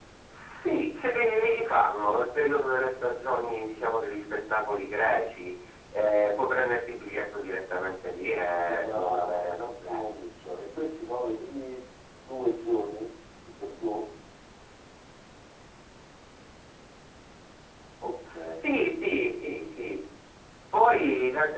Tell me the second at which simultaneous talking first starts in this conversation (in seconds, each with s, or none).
8.5 s